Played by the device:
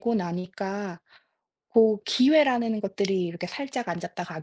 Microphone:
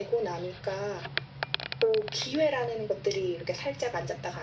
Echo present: Yes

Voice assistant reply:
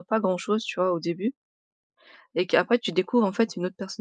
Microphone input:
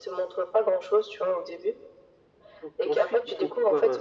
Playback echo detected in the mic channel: Yes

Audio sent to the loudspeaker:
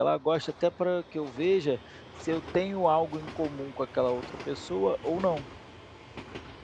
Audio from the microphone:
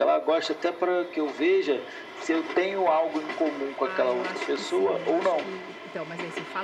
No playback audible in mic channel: No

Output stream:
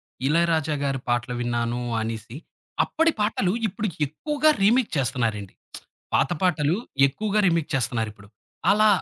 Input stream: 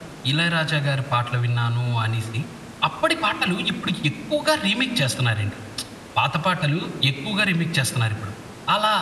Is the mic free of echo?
No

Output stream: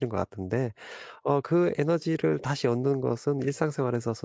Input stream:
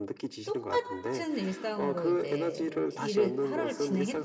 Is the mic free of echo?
No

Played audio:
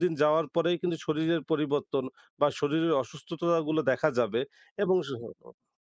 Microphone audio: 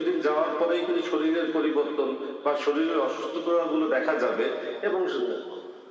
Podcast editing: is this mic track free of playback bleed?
No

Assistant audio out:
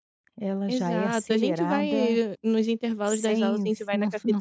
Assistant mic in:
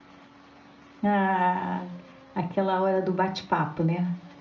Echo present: No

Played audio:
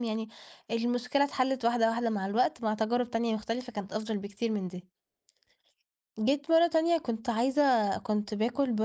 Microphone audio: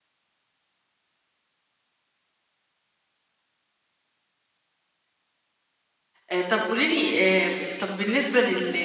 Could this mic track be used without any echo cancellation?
Yes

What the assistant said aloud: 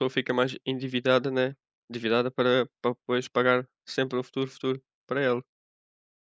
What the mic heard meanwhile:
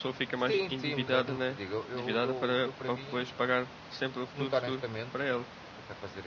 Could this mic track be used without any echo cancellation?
No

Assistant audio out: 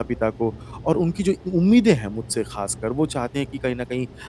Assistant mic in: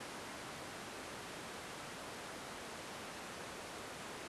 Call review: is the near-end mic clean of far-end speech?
Yes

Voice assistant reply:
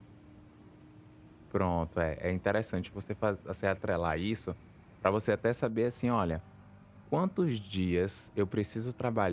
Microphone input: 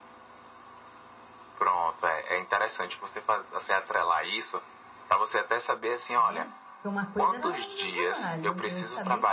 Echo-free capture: No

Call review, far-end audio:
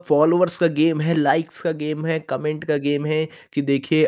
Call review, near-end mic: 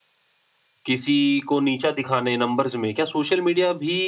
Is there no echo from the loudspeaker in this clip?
Yes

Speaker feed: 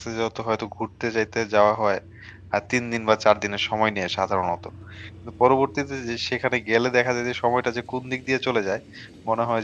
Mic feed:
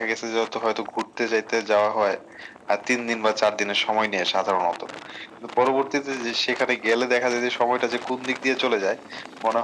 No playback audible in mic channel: No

